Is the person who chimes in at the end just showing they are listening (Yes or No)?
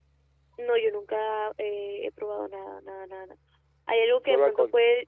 Yes